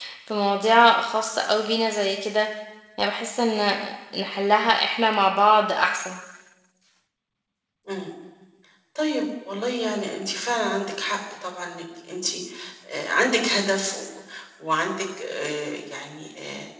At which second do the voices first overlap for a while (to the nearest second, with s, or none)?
none